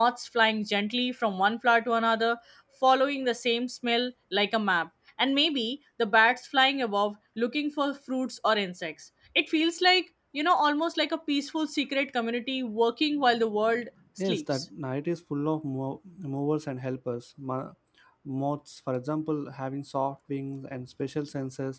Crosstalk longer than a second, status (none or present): none